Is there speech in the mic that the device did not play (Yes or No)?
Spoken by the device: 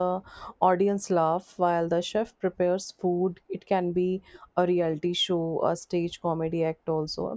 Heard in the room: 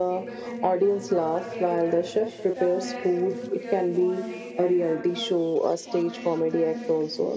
Yes